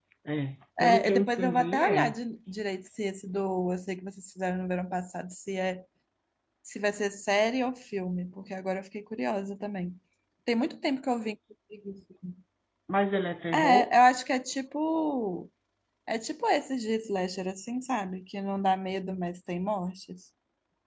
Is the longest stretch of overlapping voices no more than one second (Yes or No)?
No